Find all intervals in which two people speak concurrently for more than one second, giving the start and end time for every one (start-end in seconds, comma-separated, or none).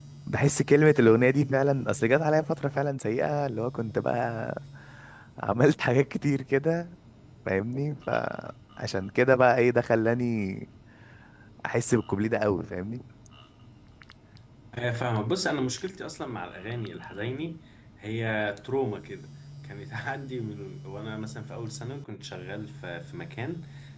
none